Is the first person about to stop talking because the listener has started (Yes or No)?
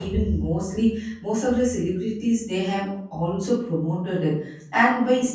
No